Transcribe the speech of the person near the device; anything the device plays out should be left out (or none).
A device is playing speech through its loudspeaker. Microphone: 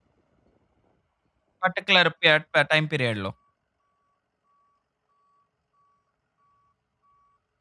పర్టిక్యులర్ పియట్ టైమ్ పీరియడ్‌లో.